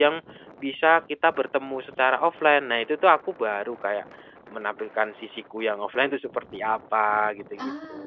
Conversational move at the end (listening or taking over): taking over